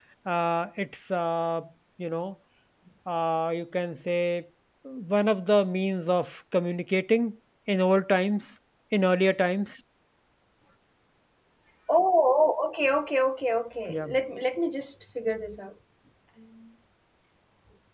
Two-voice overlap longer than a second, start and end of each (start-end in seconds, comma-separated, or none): none